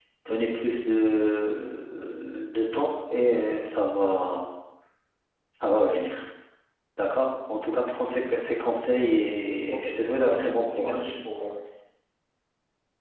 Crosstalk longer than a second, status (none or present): present